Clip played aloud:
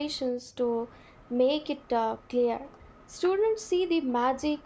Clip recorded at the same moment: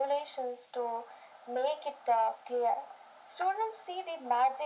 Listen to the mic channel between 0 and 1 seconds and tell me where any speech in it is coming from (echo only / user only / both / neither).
echo only